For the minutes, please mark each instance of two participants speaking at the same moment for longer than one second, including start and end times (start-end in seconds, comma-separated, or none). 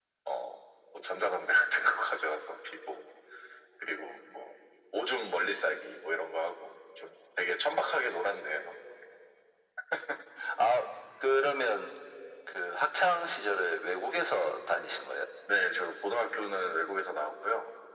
none